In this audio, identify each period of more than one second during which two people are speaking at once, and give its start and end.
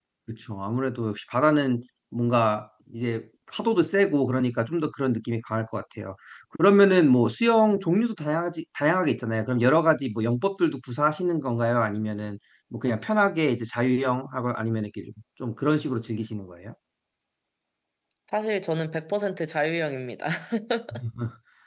none

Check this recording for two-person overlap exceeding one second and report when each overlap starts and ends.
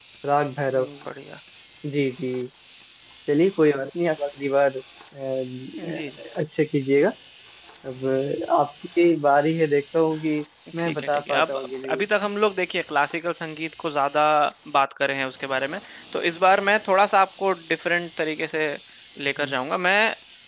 10.8-12.0

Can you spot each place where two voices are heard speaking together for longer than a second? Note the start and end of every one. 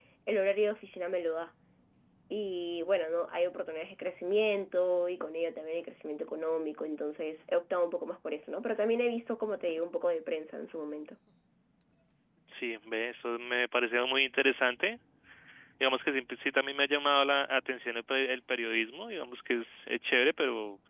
none

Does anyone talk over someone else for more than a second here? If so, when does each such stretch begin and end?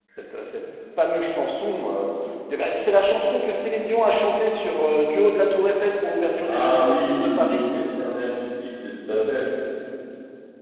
6.4-7.6

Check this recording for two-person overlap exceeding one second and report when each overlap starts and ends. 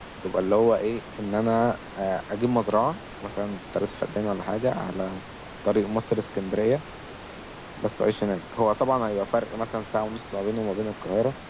none

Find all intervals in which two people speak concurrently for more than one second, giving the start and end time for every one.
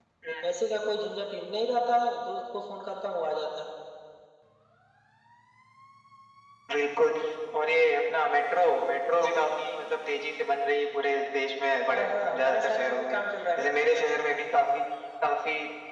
11.9-13.2

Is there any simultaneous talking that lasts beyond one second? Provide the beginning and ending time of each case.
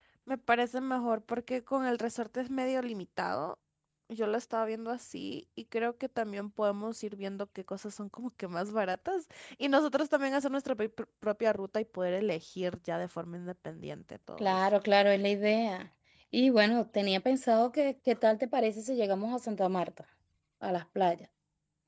none

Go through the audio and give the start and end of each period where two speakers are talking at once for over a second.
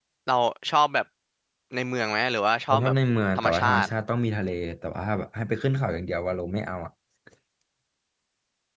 none

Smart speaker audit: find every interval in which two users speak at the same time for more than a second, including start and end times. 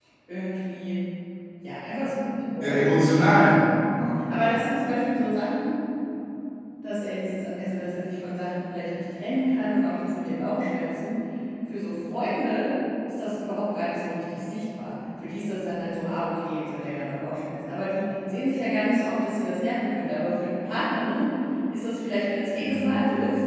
none

